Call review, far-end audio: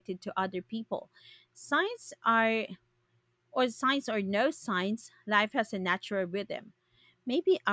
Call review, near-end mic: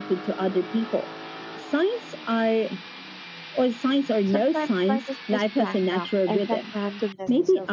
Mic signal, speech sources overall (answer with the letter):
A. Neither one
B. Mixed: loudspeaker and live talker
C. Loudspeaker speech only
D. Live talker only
B